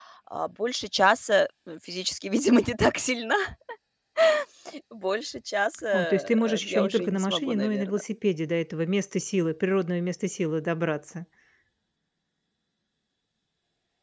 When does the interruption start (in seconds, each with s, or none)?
5.9 s